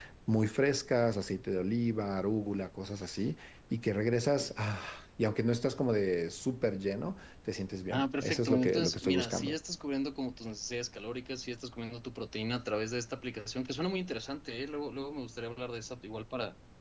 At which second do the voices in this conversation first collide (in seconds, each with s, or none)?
7.9 s